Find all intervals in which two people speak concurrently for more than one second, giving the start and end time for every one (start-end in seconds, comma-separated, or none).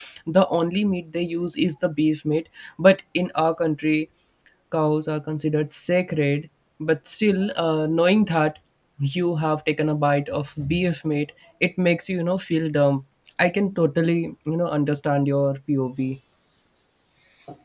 none